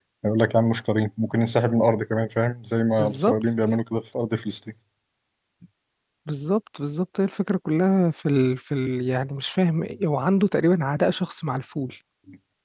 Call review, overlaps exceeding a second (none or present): none